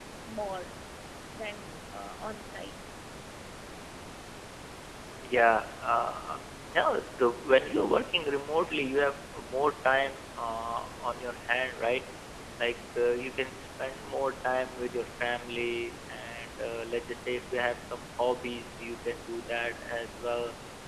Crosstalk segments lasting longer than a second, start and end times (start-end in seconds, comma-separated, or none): none